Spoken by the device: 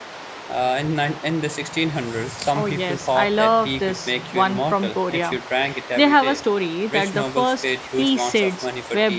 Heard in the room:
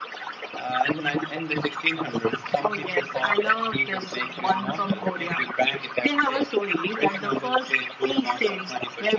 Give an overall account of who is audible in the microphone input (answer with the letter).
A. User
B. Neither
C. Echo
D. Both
C